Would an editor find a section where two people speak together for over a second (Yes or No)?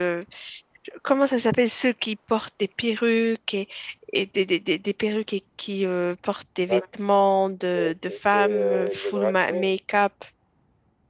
Yes